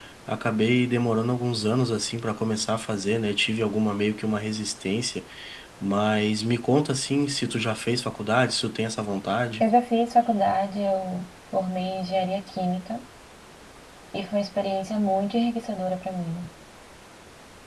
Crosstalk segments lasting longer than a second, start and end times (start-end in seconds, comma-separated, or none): none